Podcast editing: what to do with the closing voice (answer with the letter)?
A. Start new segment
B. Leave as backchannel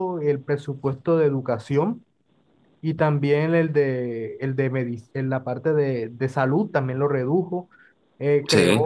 B